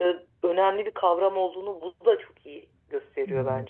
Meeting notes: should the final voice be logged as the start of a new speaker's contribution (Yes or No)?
Yes